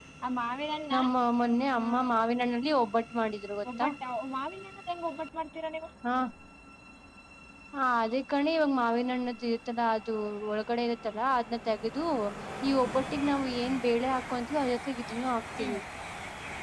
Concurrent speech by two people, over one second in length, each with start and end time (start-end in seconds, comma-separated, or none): none